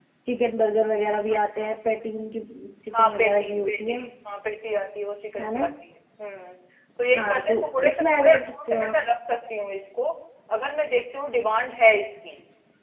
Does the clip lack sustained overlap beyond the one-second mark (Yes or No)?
No